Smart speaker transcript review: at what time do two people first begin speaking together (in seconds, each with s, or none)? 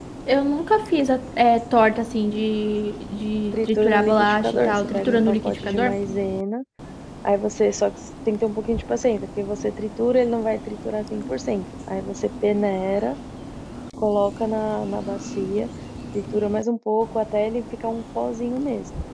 3.5 s